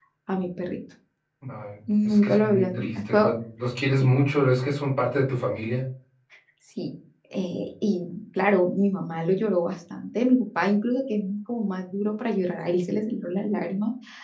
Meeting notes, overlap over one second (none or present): present